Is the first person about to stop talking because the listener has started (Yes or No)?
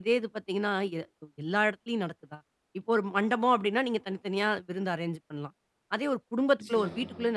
No